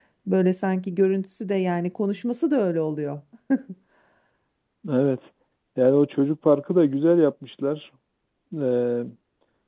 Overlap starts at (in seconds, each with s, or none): none